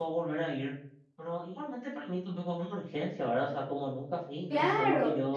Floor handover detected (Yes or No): Yes